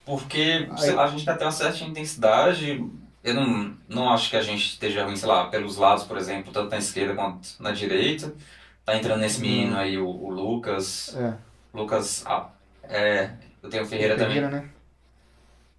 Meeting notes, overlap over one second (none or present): none